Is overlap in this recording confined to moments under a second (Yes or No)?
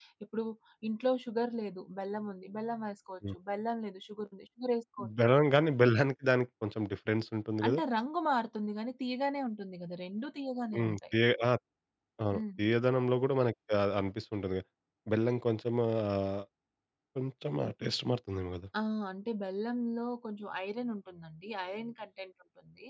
Yes